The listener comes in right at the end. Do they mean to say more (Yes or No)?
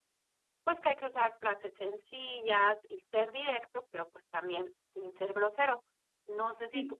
No